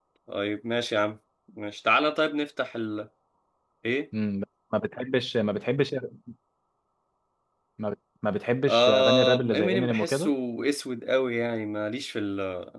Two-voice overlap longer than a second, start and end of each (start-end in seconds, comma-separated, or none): 8.7-10.3